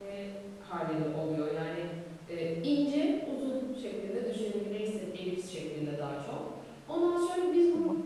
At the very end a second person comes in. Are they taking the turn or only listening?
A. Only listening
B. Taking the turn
A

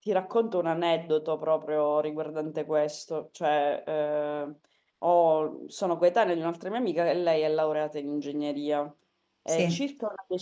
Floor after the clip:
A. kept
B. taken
A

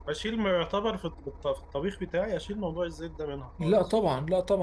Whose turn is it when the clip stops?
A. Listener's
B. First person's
A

